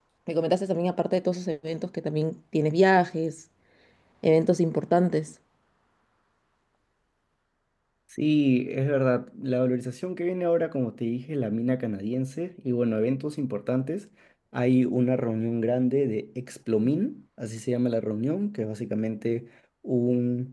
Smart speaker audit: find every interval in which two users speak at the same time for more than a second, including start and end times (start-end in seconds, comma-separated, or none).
none